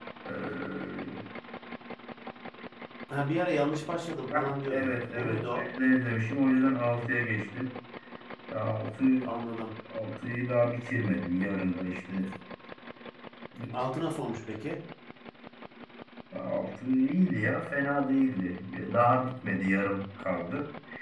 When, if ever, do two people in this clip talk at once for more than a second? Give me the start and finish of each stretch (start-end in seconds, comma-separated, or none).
4.3-5.6